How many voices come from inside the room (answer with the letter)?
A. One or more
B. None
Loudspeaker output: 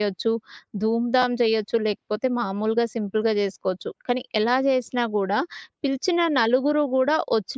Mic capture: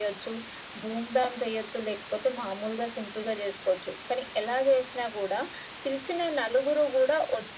B